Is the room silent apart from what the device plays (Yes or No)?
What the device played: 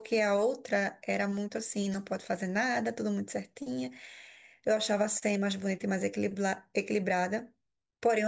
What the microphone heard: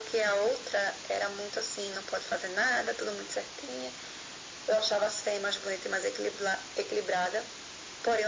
Yes